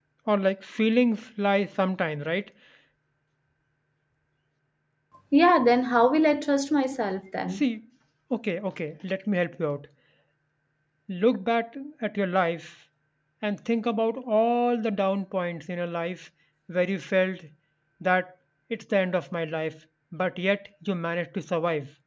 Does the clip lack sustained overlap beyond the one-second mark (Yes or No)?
Yes